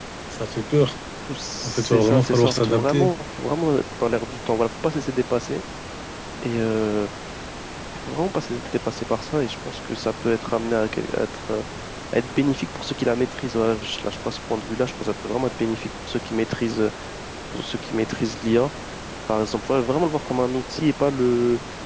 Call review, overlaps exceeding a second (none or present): present